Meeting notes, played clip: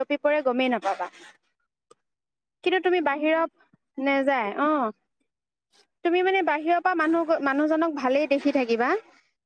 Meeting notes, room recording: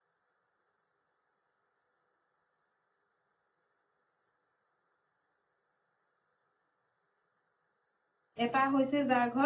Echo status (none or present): none